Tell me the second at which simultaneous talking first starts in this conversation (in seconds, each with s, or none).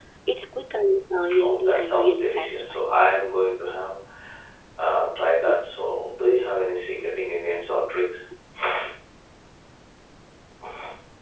1.4 s